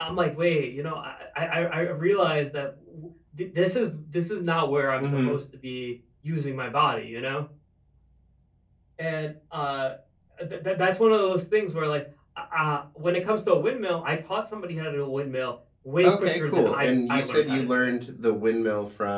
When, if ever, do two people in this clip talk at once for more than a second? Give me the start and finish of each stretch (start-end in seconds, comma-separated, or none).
16.0-17.9